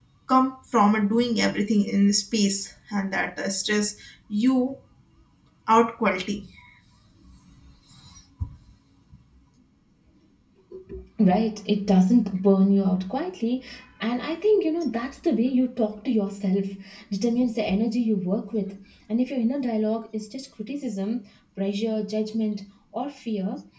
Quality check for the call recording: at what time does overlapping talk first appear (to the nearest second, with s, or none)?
none